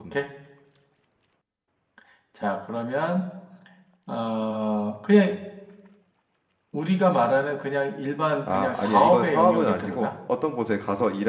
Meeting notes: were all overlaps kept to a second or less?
No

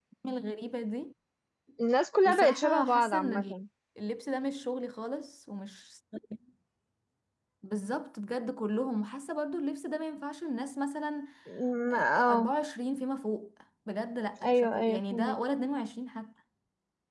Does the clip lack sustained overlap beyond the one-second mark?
No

